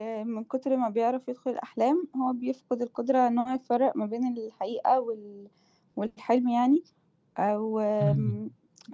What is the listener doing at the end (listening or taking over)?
listening